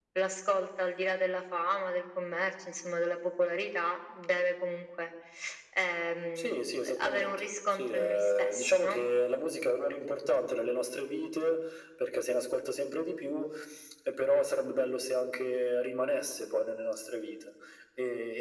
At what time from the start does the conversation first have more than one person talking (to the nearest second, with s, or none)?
6 s